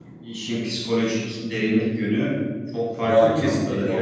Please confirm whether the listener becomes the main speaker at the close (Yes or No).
Yes